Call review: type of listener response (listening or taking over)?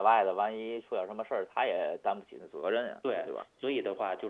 taking over